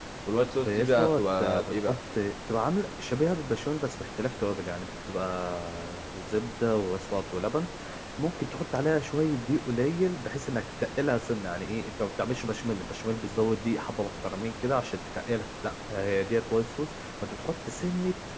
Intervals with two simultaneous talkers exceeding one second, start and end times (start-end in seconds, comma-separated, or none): 0.6-2.0